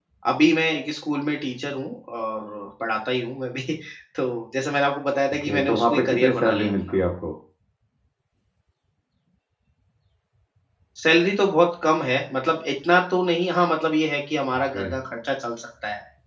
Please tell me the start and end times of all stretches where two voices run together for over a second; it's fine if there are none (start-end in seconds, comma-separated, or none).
5.4-7.0